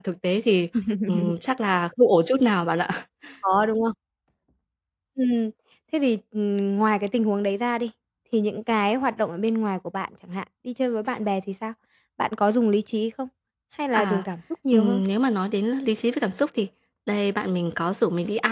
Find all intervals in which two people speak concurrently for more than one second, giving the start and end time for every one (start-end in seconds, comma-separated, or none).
none